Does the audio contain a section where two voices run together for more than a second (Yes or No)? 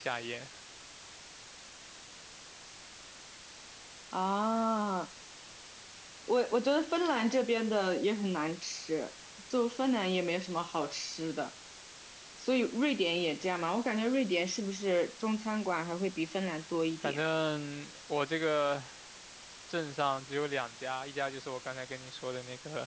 No